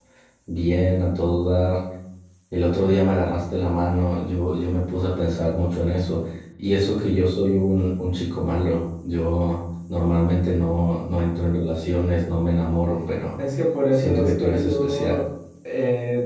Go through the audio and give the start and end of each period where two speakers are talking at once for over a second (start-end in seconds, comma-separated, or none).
13.9-15.2